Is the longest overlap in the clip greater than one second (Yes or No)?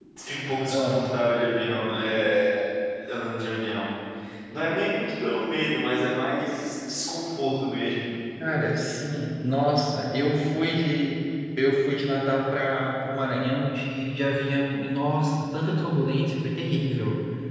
No